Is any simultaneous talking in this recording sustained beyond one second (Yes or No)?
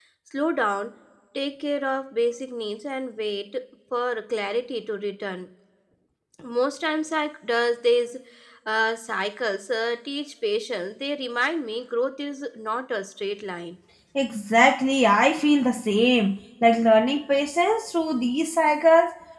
No